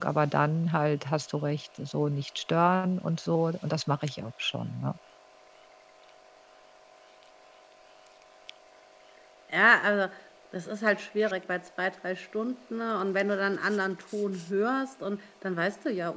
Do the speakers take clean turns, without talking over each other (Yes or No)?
Yes